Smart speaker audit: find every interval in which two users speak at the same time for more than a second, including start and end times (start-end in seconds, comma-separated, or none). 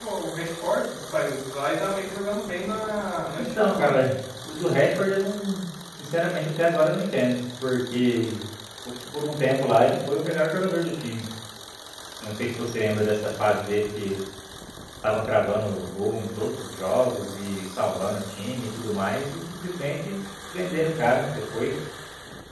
none